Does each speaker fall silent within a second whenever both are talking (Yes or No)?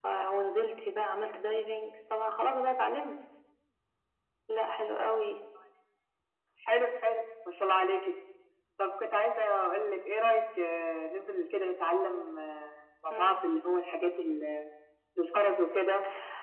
Yes